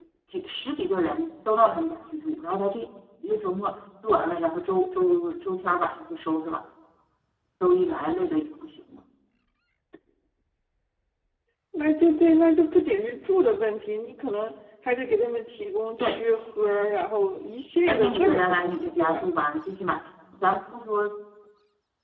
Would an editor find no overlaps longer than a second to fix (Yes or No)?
No